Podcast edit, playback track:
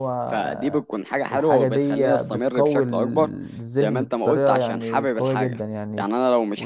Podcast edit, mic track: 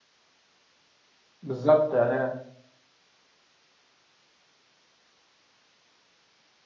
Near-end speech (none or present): present